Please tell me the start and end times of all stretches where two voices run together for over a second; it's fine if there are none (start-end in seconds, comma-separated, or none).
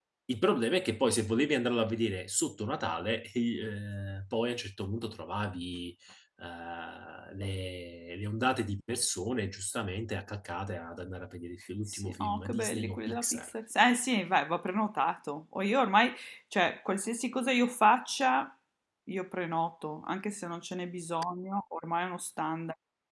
11.9-13.5